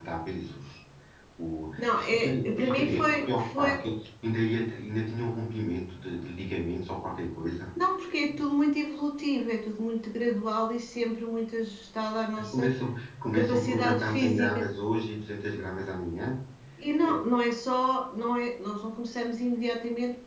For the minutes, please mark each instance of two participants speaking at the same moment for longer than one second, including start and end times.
1.8-3.7, 13.3-14.7

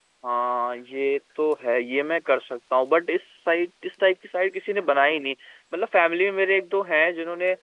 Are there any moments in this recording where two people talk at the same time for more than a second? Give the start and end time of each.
none

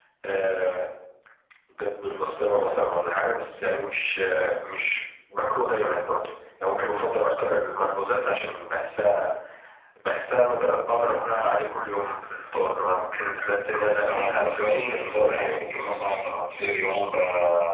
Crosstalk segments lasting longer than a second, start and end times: 14.1-15.6

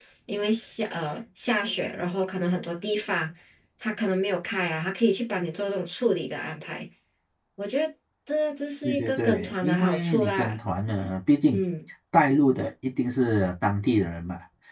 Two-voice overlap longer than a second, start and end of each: 8.8-10.6

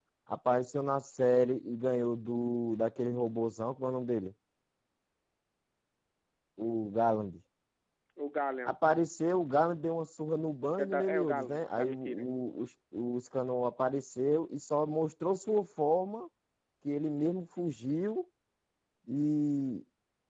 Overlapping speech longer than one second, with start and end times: 10.8-12.2

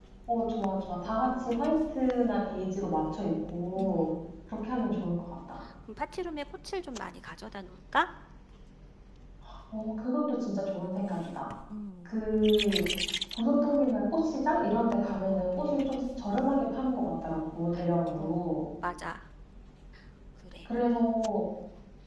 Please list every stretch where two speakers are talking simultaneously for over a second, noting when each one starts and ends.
none

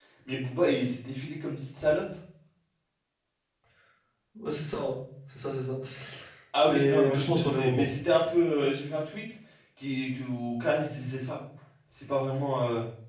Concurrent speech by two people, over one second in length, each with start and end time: 6.6-7.9

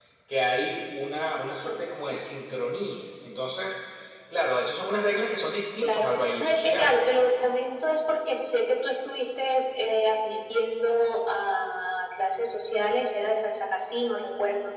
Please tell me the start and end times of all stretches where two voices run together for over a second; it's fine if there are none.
5.8-7.0

